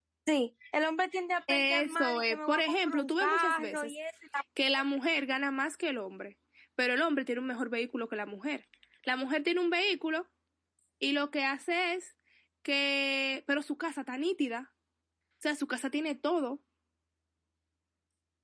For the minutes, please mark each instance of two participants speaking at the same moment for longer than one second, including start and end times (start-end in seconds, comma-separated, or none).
1.5-3.9